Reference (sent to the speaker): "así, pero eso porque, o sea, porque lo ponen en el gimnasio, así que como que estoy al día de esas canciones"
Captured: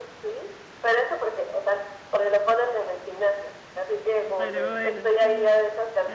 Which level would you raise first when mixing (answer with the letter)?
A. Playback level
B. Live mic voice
B